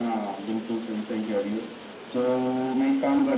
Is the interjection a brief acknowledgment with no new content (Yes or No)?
Yes